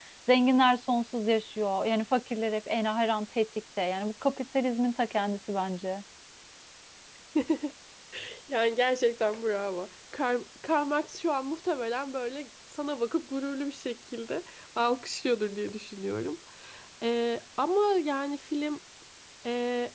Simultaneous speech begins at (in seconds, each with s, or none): none